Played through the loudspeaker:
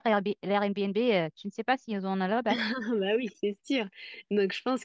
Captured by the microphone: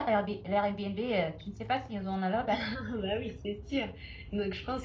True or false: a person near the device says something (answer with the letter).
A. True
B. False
B